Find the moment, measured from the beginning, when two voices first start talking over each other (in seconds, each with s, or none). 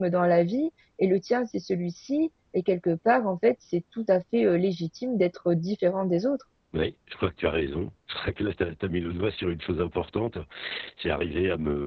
none